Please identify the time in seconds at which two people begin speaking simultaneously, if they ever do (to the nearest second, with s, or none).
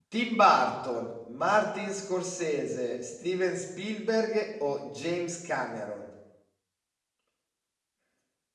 none